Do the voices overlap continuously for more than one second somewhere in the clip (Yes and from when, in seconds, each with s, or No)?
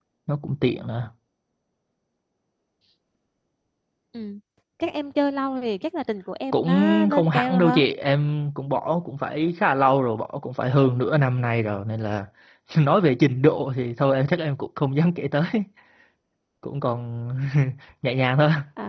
Yes, from 6.5 s